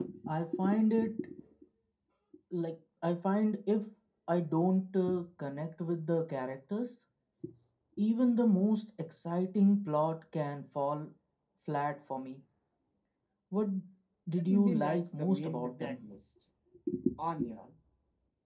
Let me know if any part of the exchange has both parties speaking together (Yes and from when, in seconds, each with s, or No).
Yes, from 14.4 s